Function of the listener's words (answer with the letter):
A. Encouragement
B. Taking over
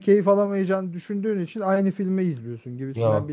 A